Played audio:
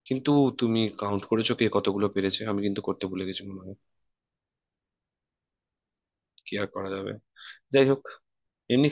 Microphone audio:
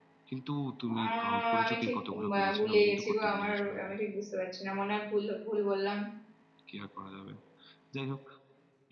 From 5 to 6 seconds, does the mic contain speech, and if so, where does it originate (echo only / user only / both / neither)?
user only